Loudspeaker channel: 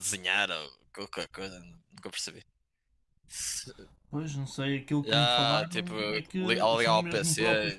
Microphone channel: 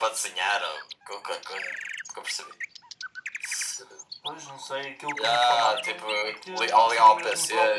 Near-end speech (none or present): none